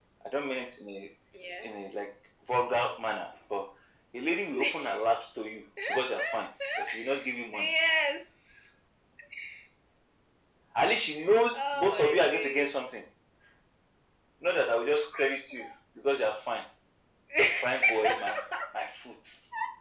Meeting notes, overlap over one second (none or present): present